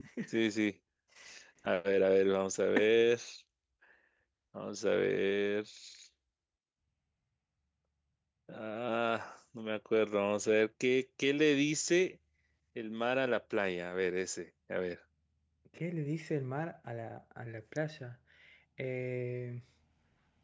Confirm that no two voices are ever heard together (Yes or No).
Yes